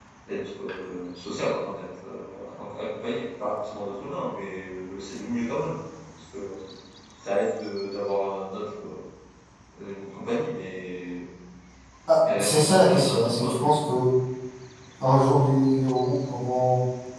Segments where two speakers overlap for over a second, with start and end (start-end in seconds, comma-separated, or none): 12.3-13.7